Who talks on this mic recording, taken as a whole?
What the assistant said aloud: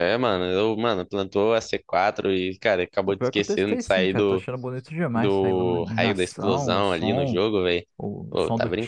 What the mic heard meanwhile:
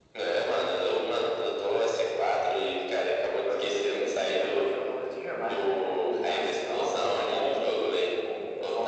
echo only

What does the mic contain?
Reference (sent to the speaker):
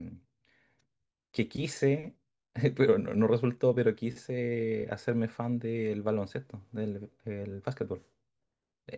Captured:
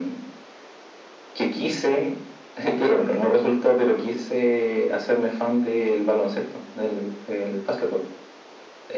echo only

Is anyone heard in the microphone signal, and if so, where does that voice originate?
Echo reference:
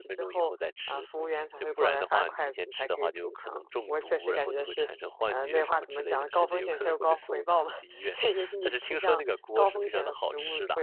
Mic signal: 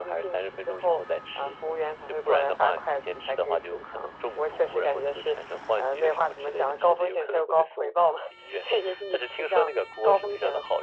echo only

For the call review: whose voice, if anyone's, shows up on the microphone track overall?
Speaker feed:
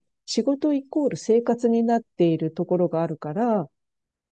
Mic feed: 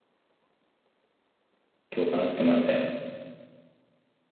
user only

